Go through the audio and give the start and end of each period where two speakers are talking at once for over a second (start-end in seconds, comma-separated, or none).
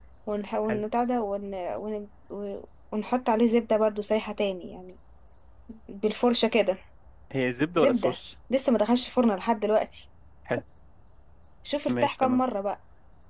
none